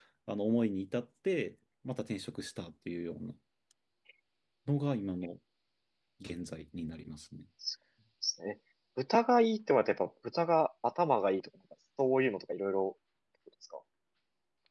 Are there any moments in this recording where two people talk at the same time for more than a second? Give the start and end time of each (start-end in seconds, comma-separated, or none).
none